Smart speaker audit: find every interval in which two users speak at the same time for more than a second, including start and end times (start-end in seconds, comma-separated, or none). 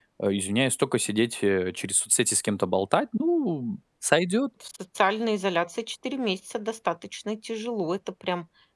none